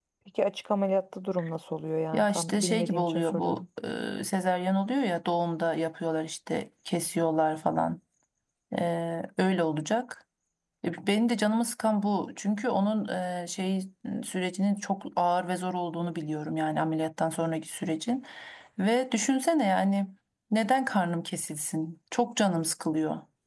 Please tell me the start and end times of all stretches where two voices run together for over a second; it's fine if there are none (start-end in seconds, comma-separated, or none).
2.1-3.6